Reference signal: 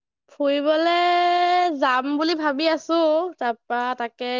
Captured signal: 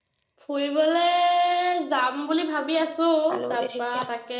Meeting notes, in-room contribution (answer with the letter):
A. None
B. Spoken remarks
B